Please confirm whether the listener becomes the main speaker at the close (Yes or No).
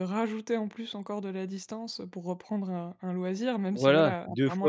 Yes